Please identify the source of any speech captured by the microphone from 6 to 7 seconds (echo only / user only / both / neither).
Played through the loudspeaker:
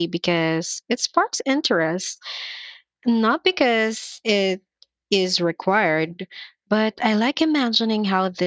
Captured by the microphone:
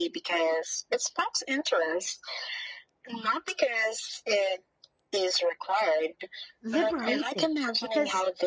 both